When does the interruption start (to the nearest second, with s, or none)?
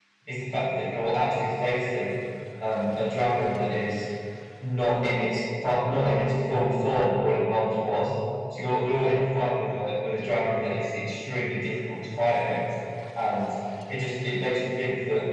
none